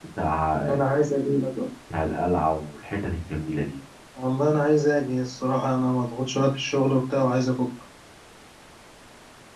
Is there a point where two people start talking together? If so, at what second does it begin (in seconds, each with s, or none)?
none